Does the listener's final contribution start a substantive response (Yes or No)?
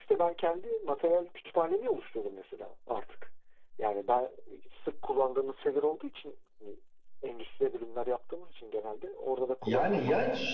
Yes